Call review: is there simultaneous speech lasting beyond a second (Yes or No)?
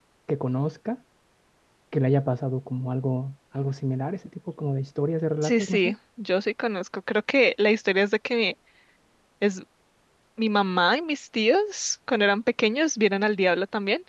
No